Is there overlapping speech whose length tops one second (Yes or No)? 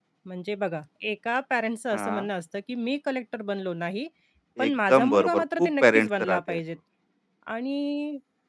Yes